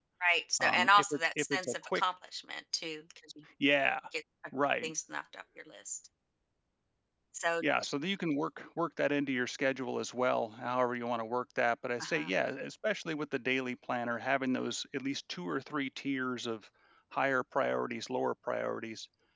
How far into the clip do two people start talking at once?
0.6 s

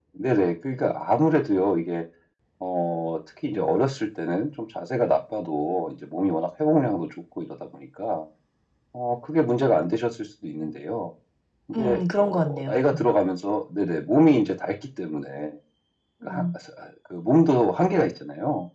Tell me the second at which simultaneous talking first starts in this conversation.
11.8 s

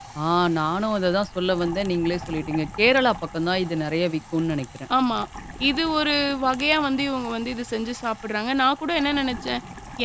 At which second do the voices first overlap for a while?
none

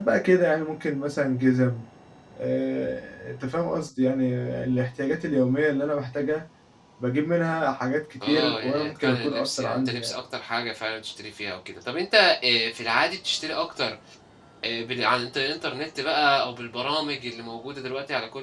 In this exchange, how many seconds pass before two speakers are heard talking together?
8.2 s

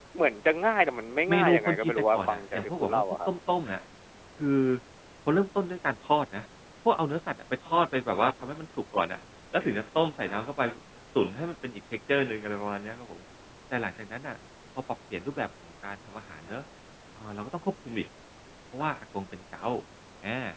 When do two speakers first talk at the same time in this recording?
1.3 s

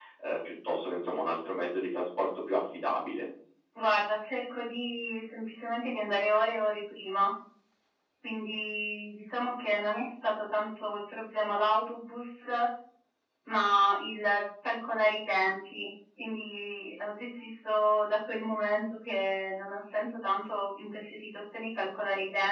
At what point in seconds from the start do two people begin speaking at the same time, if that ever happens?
none

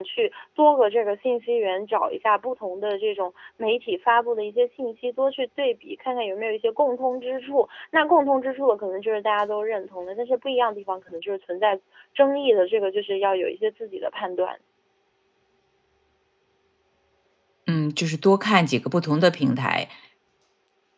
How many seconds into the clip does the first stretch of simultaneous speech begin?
none

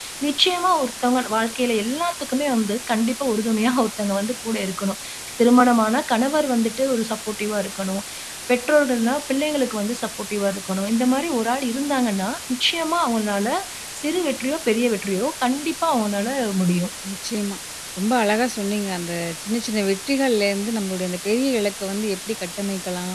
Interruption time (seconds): none

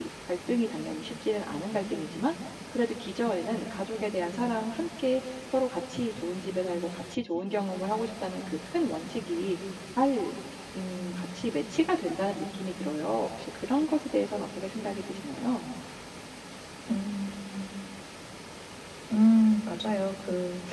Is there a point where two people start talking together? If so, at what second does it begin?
none

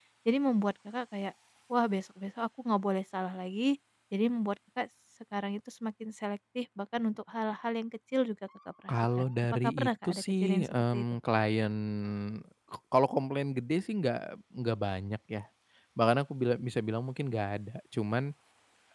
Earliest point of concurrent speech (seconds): 8.9 s

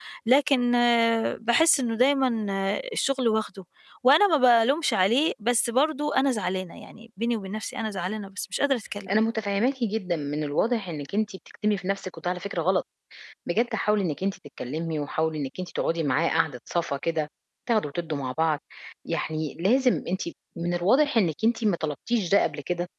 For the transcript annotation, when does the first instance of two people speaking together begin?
none

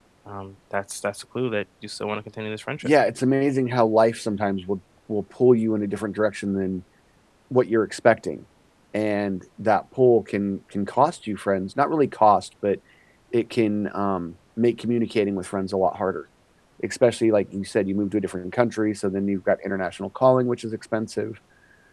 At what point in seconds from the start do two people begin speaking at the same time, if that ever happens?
none

